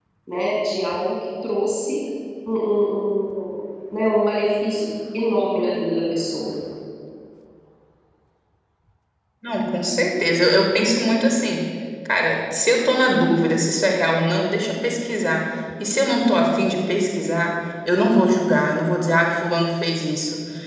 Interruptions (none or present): none